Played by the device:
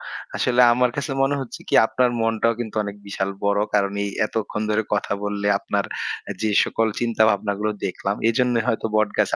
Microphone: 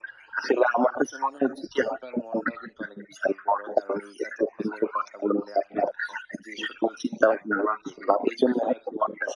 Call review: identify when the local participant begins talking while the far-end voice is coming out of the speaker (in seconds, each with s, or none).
none